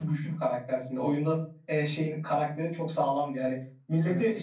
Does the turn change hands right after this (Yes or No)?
No